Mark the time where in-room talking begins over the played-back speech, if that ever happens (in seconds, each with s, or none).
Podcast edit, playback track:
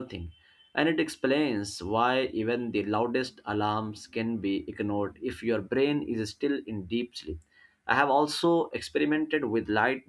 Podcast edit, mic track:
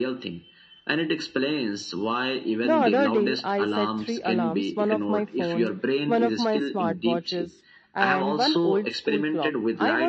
2.6 s